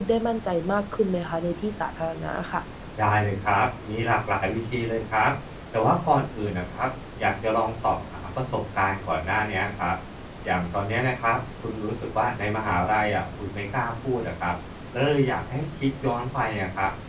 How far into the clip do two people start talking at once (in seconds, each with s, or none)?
none